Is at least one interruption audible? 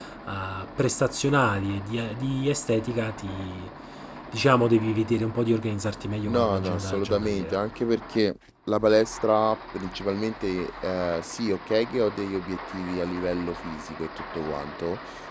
Yes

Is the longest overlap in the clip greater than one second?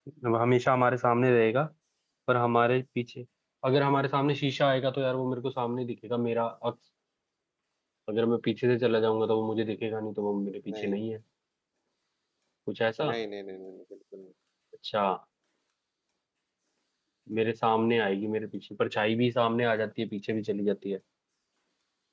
No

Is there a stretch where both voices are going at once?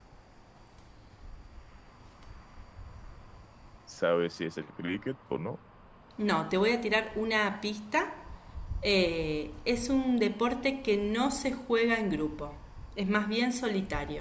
No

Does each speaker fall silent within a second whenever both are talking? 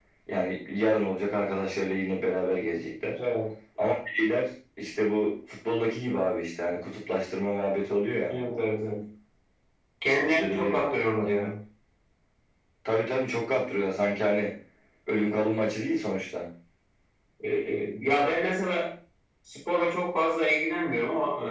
Yes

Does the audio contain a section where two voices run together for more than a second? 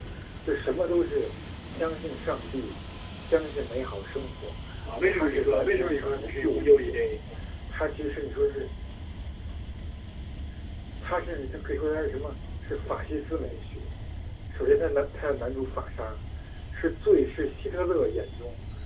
Yes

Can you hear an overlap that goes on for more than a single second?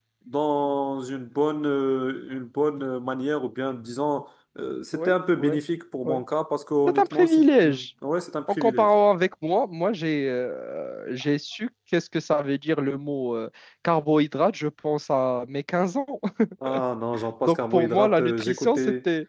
Yes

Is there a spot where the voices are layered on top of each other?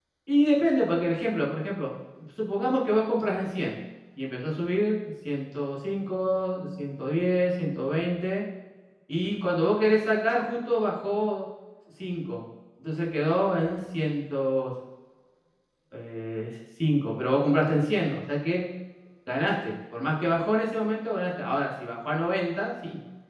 No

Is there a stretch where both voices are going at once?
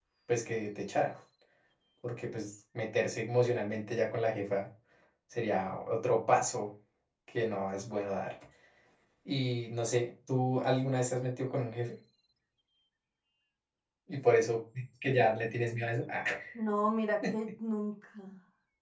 No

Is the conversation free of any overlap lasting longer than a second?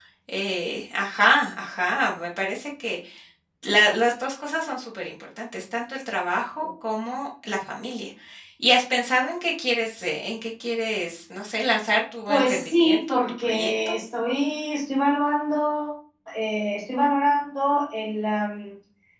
No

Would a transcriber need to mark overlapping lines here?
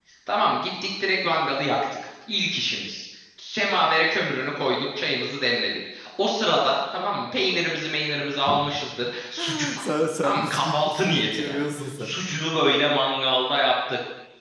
Yes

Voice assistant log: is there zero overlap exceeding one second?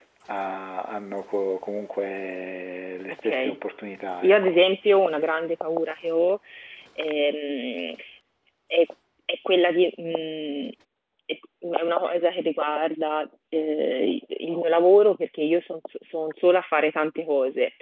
Yes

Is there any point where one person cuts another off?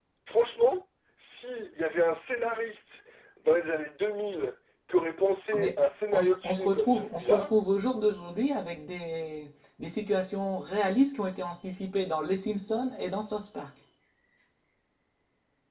Yes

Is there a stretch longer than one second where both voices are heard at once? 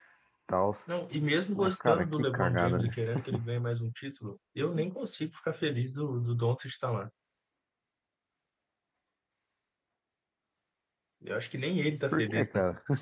Yes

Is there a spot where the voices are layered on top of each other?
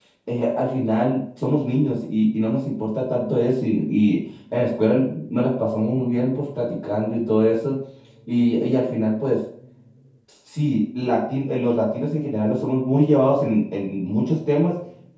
No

